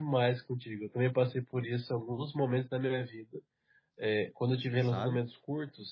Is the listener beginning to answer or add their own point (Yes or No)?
No